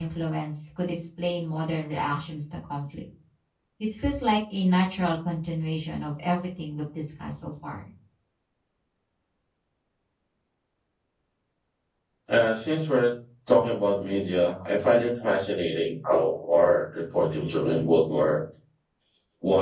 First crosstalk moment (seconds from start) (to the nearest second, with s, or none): none